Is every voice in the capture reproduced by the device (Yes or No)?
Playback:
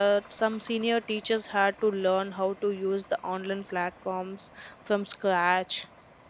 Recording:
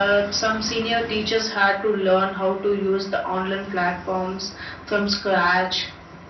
Yes